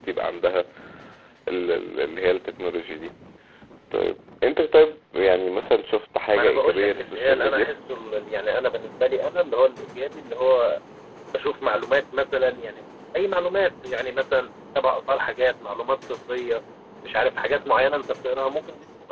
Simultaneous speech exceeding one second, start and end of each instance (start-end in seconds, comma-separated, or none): 6.3-7.7